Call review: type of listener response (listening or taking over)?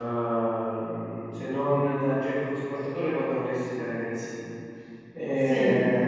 listening